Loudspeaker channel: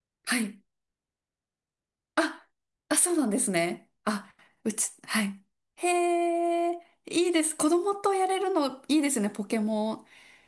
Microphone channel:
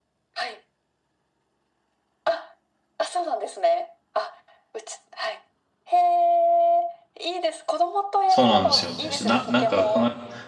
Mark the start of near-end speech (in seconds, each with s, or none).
8.3 s